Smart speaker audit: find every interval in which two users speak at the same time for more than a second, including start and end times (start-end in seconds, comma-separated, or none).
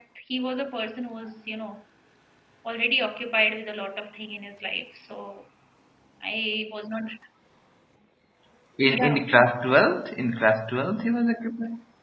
none